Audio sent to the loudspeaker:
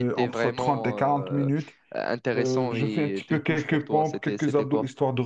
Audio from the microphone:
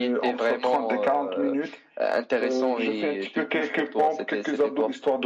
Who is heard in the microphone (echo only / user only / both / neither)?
echo only